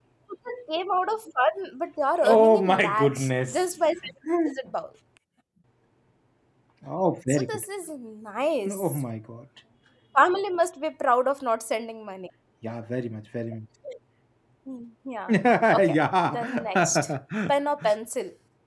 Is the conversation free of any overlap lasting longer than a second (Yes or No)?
No